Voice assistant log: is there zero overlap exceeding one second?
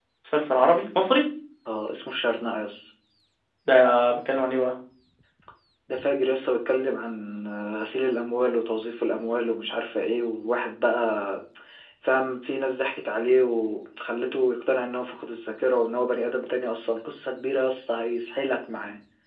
Yes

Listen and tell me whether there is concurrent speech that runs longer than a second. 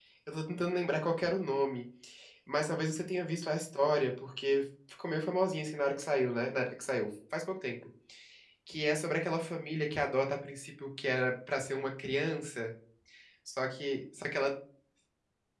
No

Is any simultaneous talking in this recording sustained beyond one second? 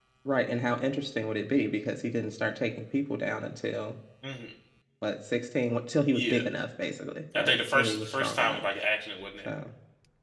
Yes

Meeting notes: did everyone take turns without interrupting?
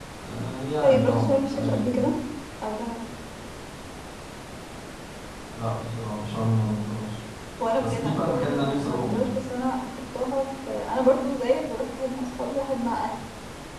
No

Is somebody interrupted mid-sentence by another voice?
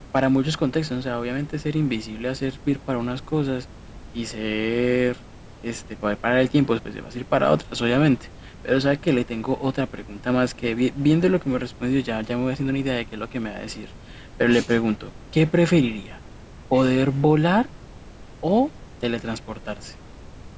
No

